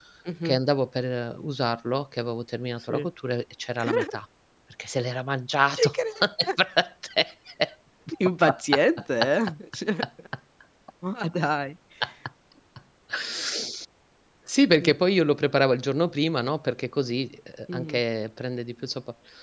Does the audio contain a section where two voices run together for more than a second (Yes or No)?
No